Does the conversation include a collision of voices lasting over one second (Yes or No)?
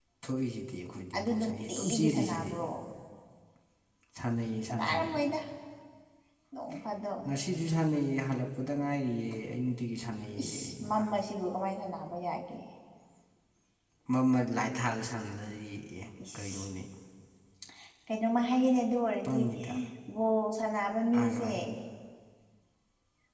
Yes